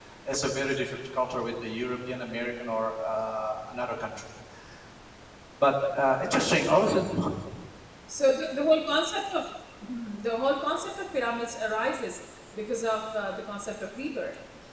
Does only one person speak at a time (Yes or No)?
Yes